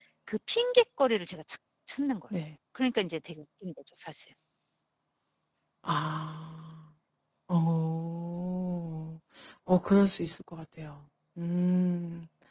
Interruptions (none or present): none